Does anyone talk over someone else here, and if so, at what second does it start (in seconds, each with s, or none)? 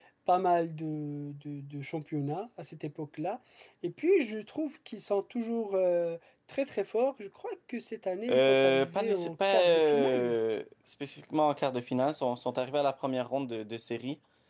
8.3 s